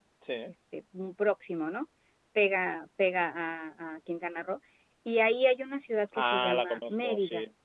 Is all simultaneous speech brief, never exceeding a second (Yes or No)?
No